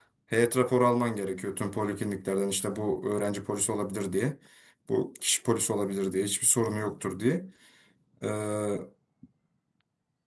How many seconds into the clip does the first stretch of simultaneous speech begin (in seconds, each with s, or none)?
none